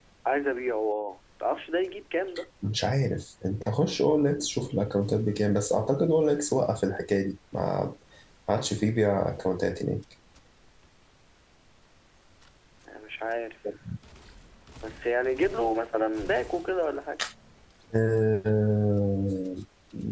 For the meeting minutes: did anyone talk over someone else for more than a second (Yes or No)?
No